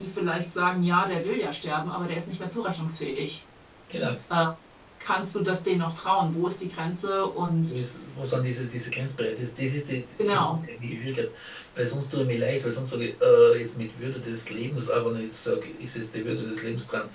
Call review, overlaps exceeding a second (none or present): none